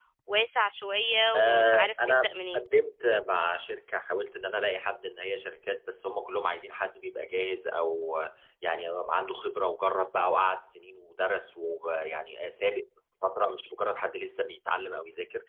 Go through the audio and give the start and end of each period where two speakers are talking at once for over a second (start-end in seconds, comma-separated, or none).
1.3-2.6